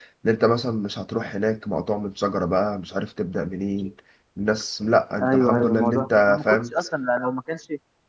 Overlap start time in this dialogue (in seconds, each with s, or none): 5.2 s